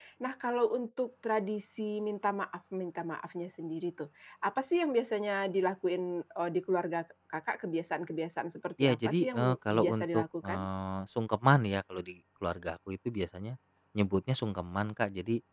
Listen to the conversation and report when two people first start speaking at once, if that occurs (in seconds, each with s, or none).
8.8 s